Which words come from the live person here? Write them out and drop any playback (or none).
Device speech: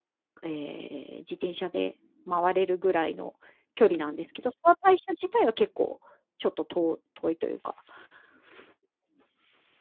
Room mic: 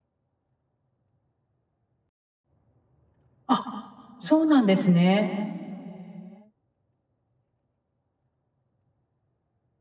あ、そうなんですね。